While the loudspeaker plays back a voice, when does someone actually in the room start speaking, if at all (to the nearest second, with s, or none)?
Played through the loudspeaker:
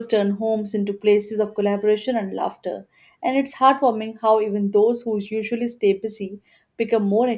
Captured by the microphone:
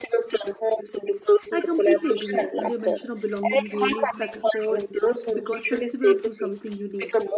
2 s